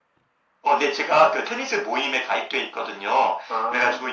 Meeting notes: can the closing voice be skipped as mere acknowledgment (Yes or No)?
Yes